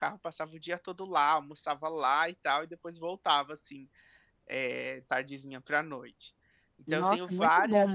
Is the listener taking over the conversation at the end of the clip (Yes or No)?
Yes